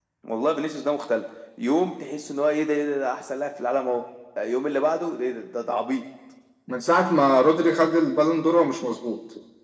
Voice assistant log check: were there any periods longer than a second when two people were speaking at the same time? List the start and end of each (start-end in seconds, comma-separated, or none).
none